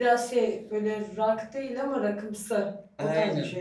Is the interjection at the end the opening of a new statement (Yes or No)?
Yes